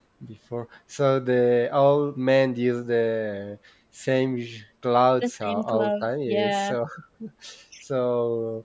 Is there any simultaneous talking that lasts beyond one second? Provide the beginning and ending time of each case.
5.2-6.7

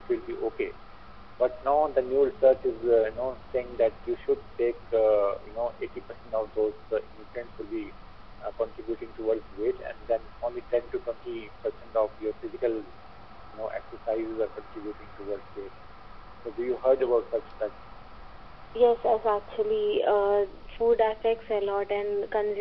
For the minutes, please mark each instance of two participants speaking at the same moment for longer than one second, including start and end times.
none

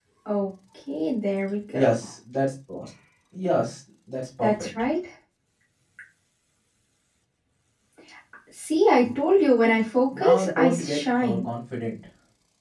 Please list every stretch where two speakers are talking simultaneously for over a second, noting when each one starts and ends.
10.1-11.4

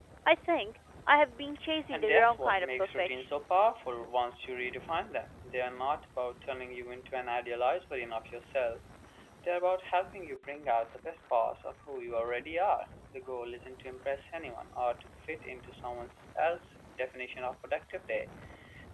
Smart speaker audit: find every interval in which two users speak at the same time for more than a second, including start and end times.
1.9-3.2

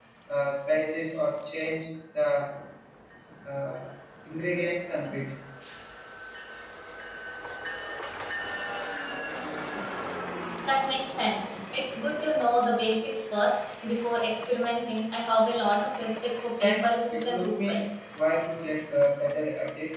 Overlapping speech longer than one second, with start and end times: 16.6-17.8

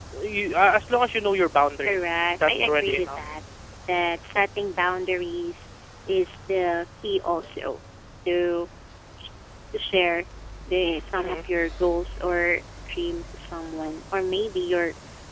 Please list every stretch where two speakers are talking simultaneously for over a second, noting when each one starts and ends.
1.8-3.2

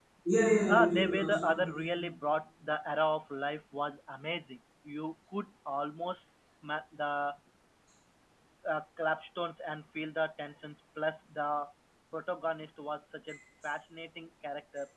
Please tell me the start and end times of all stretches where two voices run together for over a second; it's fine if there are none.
0.7-1.9

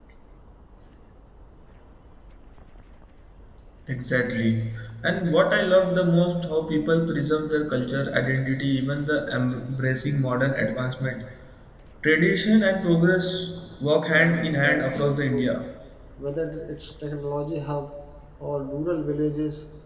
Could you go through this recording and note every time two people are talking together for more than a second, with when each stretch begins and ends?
14.1-15.6

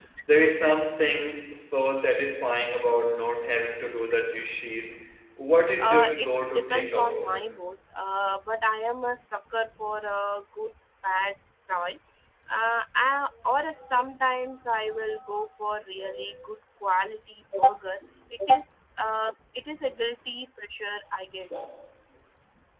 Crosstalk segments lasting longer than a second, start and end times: 5.8-7.4

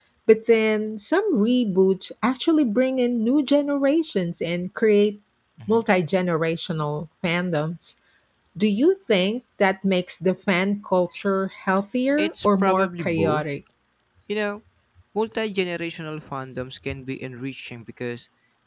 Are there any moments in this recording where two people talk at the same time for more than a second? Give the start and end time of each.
12.2-13.4

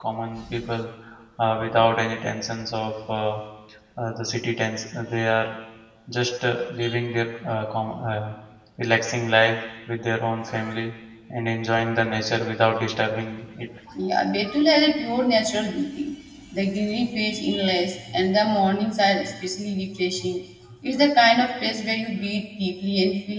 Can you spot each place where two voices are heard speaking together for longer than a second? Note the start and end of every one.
none

